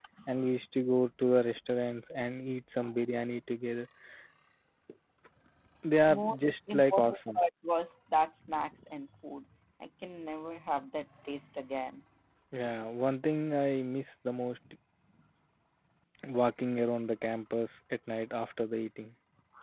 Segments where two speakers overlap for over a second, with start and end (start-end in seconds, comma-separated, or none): 6.1-7.4